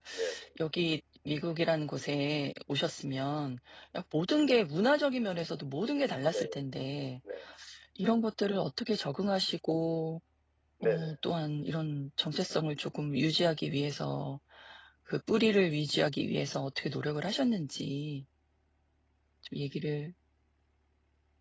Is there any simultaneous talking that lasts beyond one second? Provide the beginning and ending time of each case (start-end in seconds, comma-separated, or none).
none